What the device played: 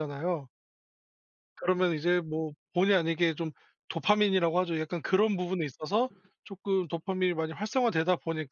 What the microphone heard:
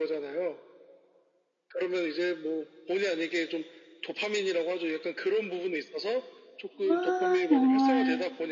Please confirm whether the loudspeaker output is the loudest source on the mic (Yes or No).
No